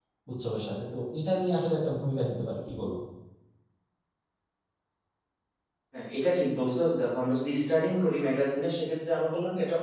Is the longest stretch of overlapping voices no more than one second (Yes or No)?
Yes